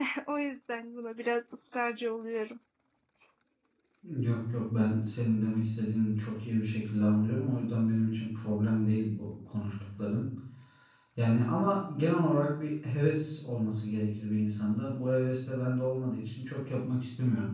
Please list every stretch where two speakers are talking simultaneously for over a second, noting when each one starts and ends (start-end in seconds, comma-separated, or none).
none